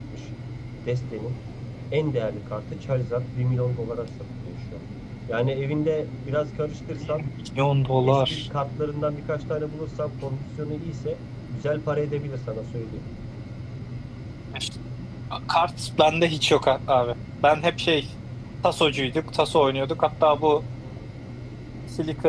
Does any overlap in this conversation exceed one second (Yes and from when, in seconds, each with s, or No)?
No